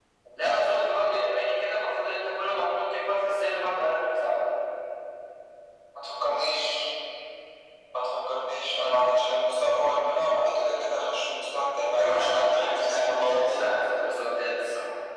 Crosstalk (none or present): present